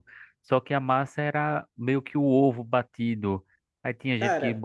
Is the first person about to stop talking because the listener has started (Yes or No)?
No